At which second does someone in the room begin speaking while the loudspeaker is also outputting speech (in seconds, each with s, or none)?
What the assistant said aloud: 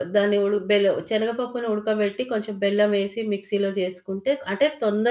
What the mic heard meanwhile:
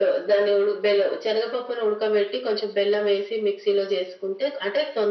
none